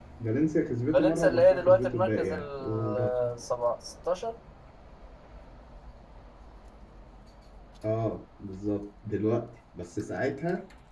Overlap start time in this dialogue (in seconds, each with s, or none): 0.9 s